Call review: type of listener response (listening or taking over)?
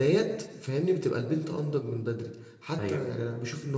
listening